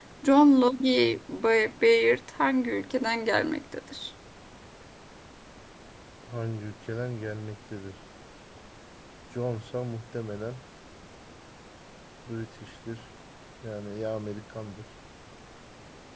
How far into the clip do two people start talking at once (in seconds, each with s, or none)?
none